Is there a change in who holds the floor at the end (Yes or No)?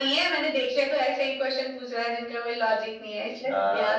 Yes